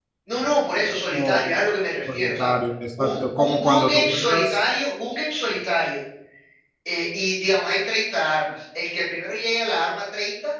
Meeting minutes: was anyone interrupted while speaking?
Yes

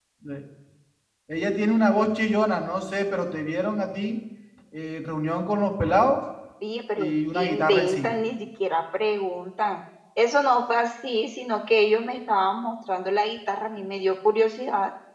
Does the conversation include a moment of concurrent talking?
Yes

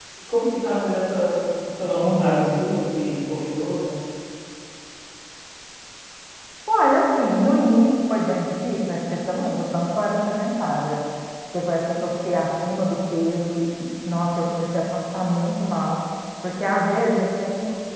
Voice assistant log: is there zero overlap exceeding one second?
Yes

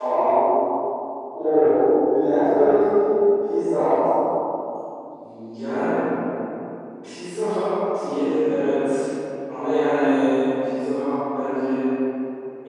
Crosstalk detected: No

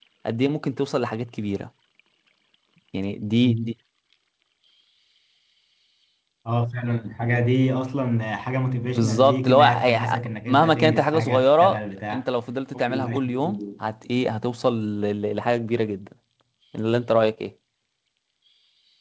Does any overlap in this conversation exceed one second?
Yes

